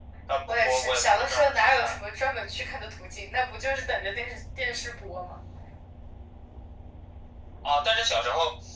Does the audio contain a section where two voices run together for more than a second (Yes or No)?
Yes